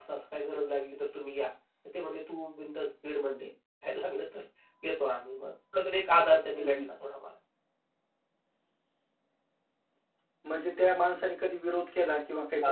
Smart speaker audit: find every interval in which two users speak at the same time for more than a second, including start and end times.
none

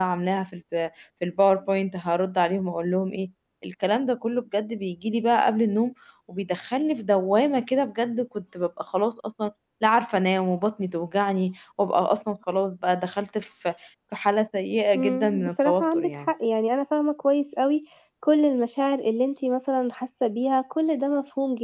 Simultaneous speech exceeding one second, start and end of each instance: 14.9-16.3

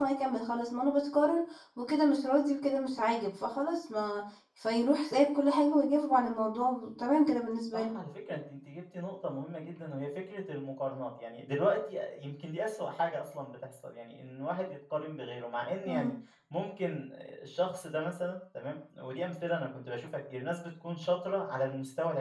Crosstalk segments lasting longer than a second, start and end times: none

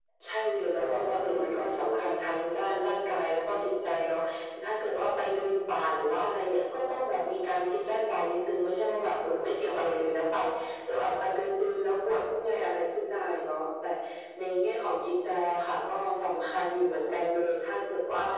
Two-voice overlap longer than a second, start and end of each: 0.7-2.1

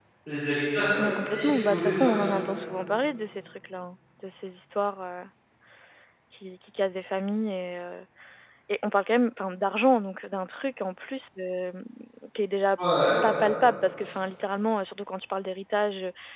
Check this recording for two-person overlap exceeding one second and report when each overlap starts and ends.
1.0-2.3

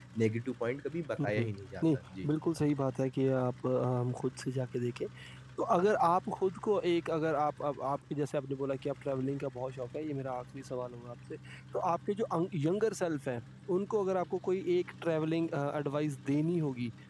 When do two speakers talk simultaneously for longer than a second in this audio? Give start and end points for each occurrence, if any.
none

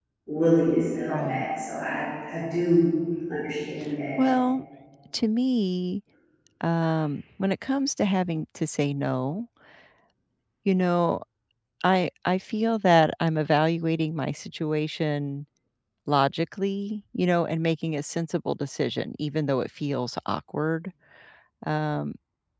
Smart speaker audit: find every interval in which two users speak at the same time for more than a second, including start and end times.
none

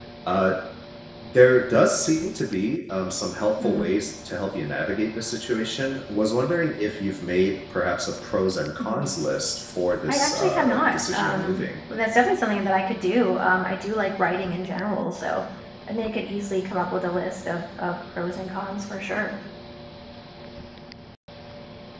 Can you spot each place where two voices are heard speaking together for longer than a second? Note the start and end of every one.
10.1-11.6

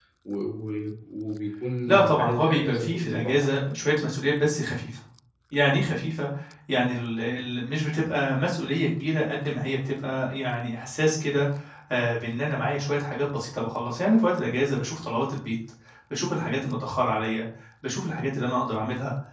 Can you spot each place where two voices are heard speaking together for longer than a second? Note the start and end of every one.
1.9-3.5

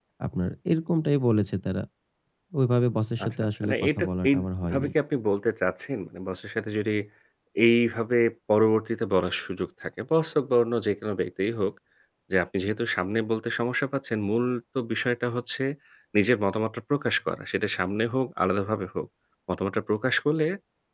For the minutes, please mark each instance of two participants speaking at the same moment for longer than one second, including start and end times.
3.2-4.9

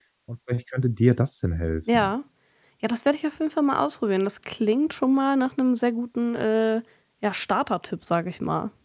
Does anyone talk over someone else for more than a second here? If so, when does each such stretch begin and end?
none

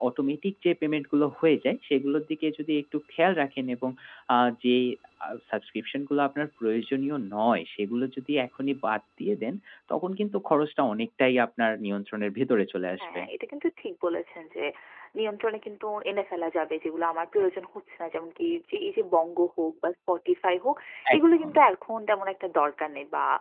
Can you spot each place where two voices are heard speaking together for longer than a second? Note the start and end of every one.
none

